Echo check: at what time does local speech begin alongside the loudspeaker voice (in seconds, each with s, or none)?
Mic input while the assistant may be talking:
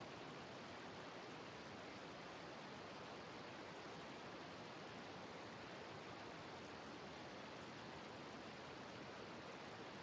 none